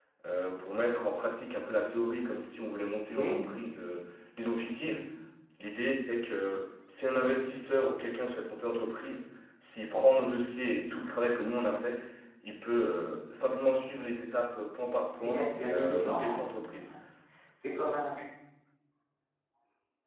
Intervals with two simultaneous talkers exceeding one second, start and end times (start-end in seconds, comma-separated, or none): 15.2-16.8